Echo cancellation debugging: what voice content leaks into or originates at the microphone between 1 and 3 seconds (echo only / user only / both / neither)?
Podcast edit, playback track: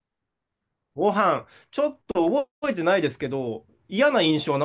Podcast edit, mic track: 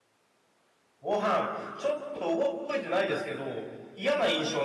echo only